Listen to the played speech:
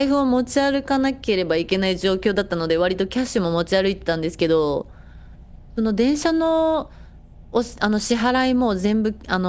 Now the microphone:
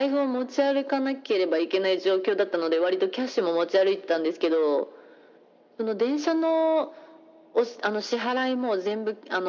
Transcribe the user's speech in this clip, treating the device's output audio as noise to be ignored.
none

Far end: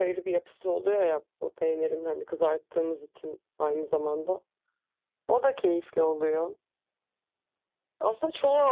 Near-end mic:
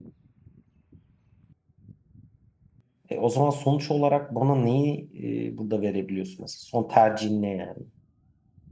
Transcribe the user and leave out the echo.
E, o zaman sonuç olarak bana neyi e, burada verebiliyorsun mesela? Son tercihin ne yani?

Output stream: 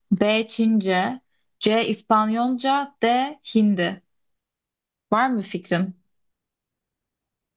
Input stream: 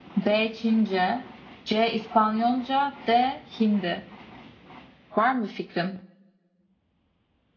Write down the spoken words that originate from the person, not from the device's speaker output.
none

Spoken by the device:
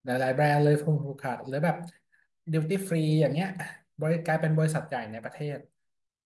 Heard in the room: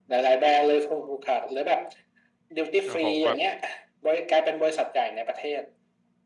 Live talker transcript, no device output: โอ้โหแบบ

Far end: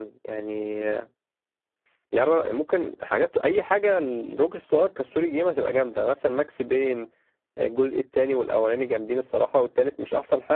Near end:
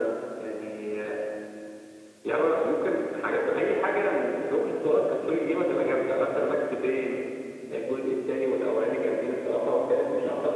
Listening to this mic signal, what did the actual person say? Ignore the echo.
none

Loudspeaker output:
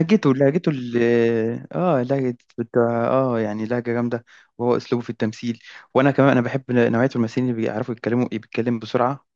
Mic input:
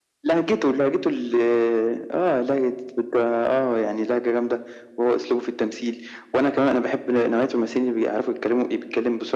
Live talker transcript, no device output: none

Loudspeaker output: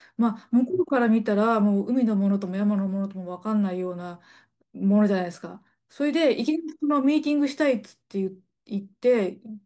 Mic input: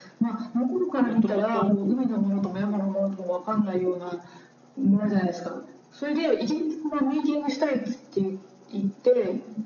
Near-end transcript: もともと

